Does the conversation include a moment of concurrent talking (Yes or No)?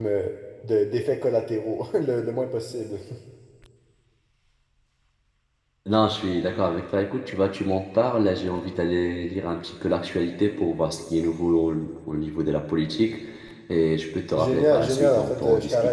Yes